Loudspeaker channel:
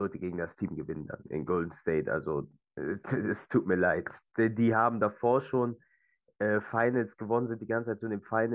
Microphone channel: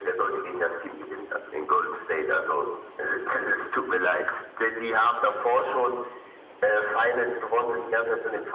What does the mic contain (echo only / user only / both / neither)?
echo only